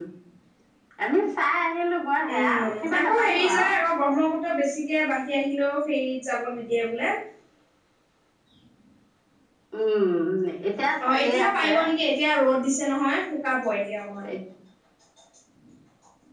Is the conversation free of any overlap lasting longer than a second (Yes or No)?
No